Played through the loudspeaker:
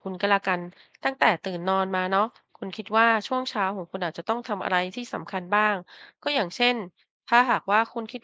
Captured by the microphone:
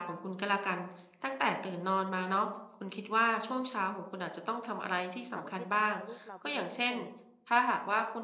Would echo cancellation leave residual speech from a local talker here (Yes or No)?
Yes